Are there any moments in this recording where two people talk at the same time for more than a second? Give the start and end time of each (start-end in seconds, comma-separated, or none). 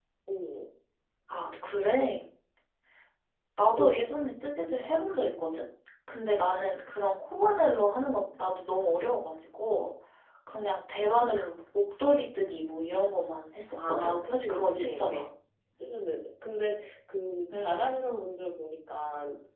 13.9-15.2